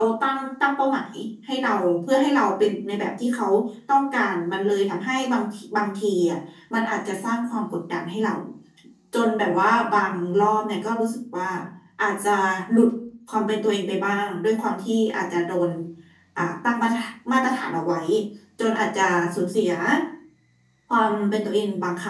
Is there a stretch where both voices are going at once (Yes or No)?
No